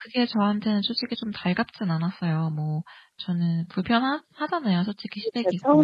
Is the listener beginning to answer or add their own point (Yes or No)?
Yes